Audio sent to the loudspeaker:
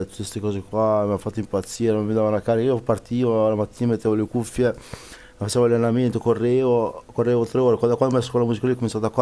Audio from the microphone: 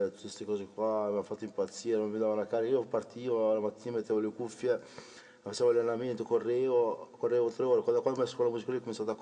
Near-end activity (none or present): none